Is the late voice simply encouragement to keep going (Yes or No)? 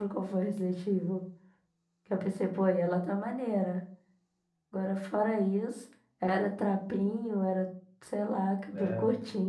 No